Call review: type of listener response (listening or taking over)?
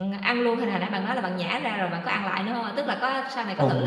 taking over